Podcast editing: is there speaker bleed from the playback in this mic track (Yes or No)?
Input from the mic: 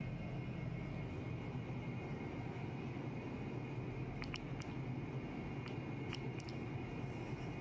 No